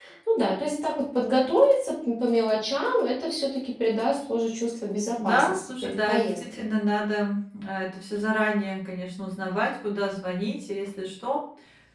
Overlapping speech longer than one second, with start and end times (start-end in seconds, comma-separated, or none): 5.2-6.7